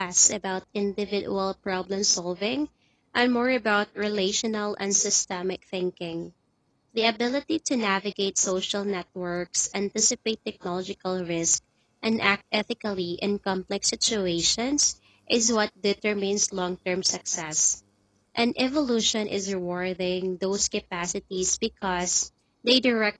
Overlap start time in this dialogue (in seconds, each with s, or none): none